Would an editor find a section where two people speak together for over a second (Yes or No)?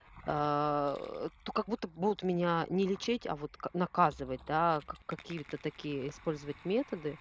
No